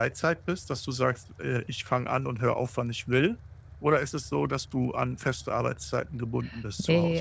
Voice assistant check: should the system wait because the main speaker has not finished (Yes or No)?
No